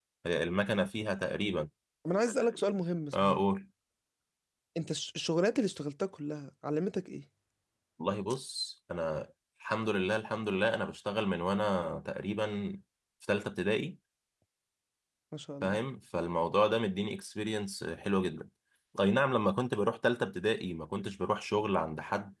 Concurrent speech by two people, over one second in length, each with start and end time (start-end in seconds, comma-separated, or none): none